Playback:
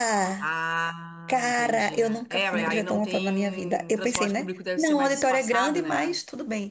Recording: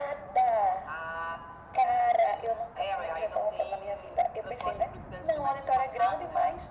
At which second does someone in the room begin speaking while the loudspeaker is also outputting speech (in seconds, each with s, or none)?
none